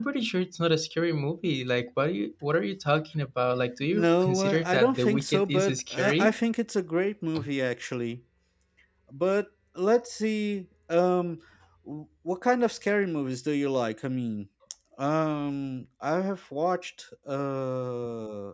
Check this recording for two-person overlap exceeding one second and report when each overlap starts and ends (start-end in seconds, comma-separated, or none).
3.9-6.3